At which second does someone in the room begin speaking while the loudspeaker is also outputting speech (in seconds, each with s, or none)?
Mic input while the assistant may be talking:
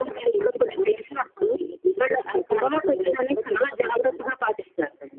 none